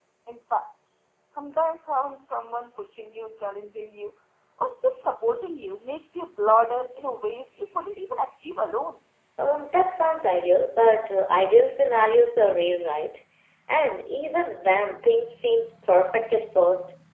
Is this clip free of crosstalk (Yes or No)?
Yes